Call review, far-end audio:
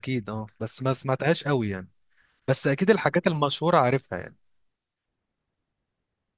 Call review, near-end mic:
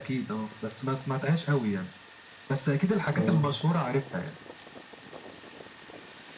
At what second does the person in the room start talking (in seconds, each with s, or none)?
3.2 s